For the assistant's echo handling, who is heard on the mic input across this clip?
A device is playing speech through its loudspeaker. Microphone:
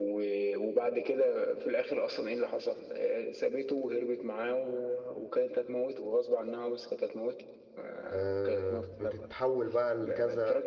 both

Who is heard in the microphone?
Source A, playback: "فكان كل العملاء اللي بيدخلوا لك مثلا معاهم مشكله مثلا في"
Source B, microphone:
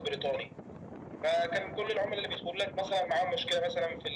echo only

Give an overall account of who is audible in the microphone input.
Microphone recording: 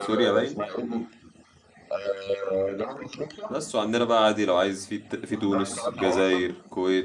both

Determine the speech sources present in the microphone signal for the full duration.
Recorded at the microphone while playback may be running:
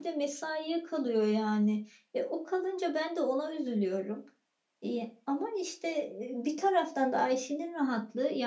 user only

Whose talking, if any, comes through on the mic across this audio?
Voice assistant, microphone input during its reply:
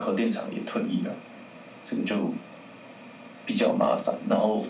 echo only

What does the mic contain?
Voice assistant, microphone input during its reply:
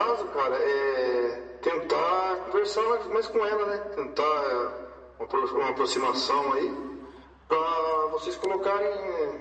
echo only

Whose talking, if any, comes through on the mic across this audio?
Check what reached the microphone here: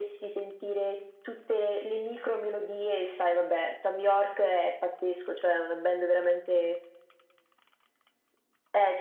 echo only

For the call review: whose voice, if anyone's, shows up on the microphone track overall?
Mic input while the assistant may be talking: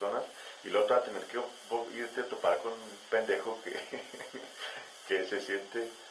echo only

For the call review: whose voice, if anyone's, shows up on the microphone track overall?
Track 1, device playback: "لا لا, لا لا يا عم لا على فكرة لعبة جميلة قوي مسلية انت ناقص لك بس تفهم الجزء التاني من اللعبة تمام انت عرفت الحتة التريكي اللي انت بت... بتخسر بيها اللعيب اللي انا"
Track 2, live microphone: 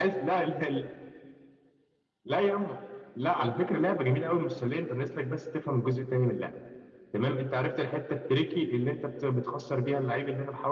echo only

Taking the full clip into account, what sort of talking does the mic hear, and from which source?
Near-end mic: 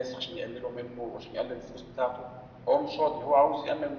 echo only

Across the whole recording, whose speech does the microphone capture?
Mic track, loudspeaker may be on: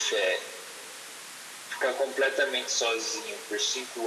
echo only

